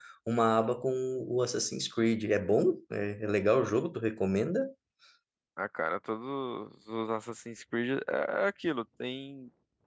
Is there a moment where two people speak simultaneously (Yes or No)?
No